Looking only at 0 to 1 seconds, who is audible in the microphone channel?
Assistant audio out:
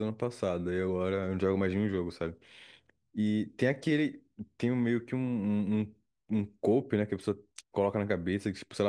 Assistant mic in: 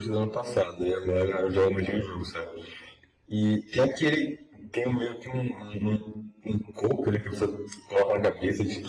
echo only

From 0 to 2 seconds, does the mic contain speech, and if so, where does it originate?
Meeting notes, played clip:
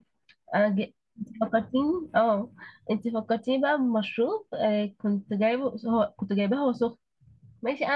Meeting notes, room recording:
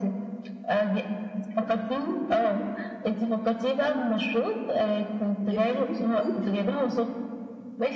echo only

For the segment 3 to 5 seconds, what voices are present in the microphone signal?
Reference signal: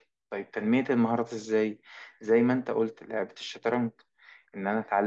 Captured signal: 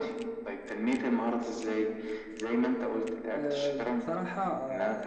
both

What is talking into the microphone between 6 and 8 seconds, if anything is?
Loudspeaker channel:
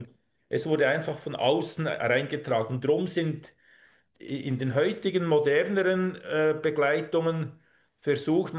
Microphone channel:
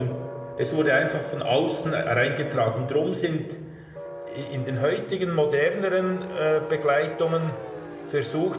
echo only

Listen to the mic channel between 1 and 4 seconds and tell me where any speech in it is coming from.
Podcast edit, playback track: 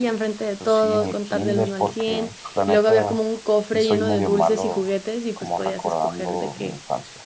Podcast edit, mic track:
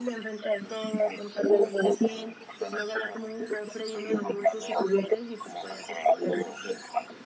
echo only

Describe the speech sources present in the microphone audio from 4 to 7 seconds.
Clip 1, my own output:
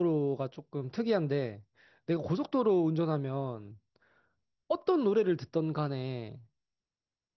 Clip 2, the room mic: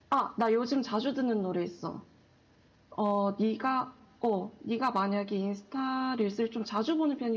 user only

